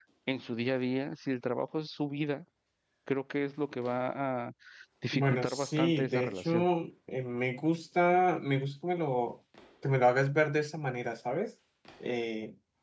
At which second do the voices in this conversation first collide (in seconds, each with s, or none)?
5.2 s